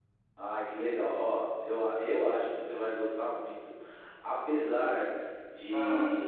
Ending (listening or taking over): listening